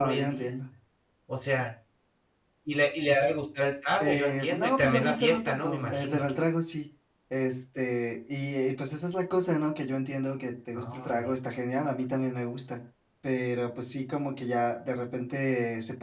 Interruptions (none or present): present